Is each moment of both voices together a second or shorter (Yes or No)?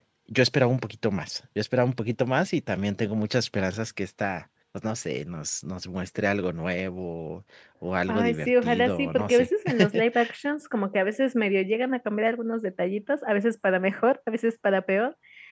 No